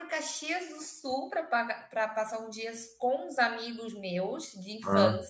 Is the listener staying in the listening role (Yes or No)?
Yes